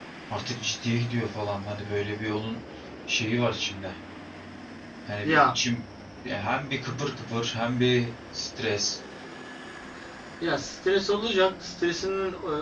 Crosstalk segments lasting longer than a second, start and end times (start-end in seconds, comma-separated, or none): none